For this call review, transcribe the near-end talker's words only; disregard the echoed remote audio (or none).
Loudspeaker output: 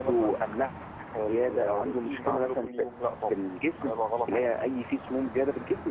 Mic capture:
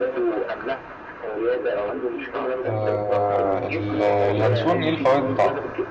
آه ال- اليانسون ايه الفوائد بتاعته